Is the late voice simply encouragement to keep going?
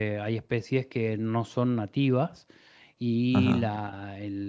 Yes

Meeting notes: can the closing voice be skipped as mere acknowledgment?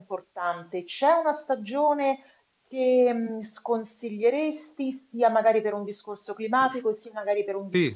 Yes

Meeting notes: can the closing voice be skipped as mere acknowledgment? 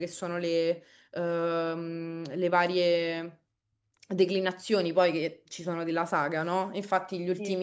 Yes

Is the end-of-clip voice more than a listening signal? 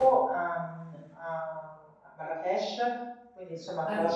No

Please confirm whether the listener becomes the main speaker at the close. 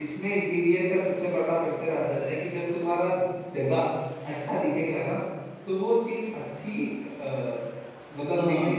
Yes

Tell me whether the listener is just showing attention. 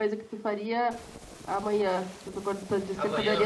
No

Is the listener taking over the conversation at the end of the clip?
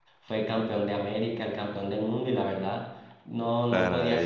Yes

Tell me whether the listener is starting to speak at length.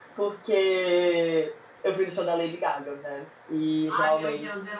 Yes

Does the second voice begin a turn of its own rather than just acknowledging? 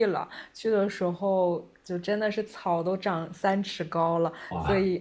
No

